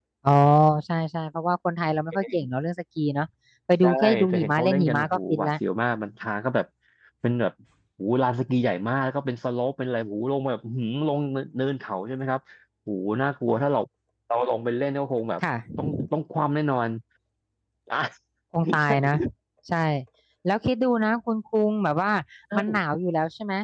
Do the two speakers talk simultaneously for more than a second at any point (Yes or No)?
Yes